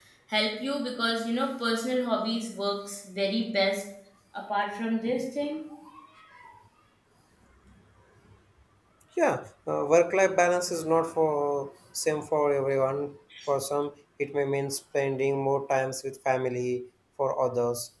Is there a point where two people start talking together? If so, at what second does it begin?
none

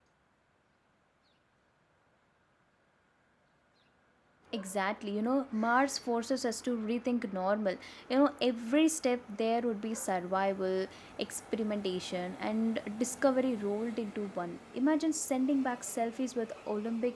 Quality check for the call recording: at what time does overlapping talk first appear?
none

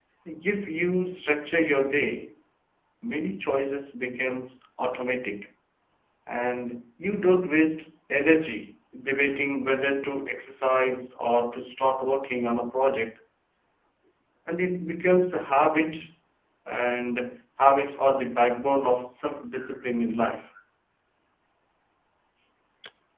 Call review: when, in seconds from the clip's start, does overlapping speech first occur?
none

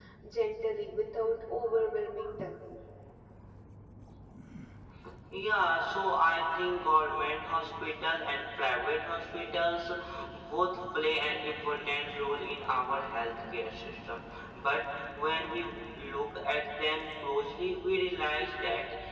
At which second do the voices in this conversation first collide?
none

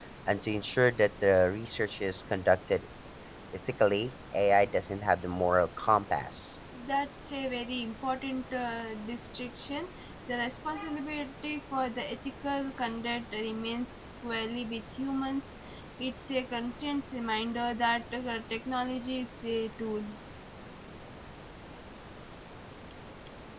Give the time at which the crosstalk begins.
none

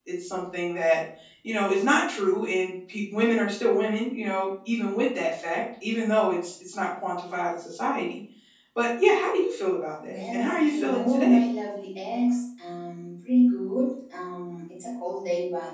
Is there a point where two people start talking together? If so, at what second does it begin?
10.0 s

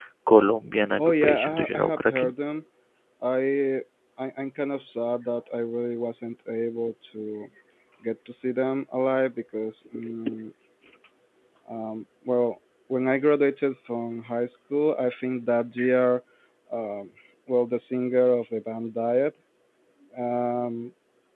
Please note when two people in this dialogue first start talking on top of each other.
1.0 s

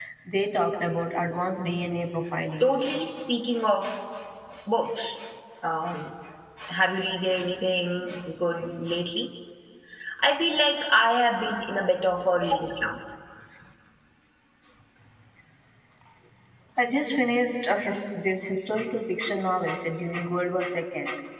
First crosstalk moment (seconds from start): none

